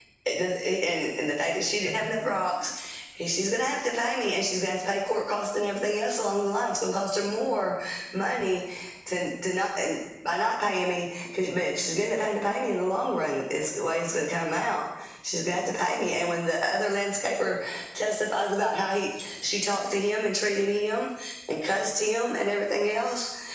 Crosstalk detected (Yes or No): No